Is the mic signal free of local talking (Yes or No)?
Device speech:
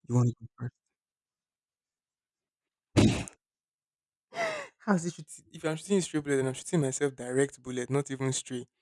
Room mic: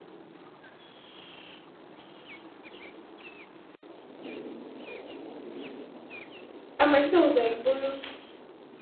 No